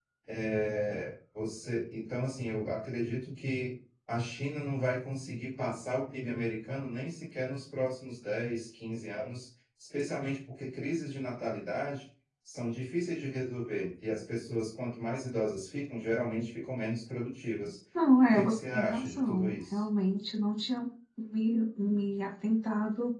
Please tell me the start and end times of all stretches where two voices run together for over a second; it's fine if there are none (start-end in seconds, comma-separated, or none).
18.3-19.8